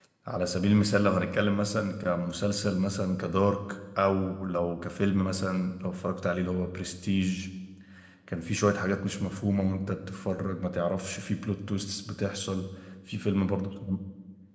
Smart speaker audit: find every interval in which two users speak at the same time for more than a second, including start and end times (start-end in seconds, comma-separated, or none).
none